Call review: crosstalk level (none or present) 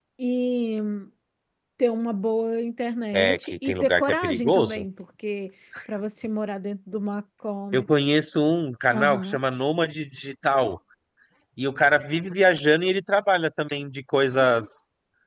present